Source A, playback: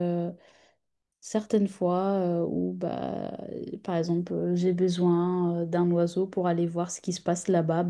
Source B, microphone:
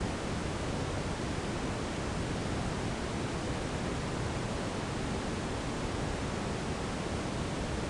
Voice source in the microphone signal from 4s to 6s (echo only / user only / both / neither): neither